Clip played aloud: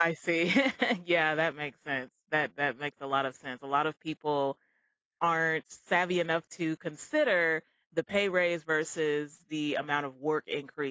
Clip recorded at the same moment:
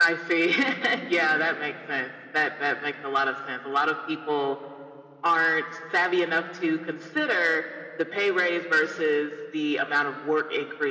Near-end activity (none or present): none